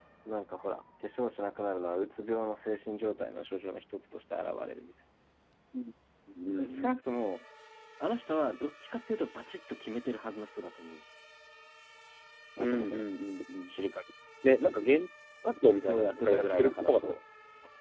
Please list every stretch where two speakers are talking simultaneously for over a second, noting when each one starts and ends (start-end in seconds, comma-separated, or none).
15.9-17.2